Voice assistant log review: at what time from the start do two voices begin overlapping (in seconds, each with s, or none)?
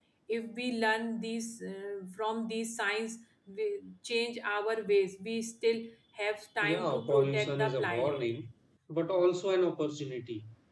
6.6 s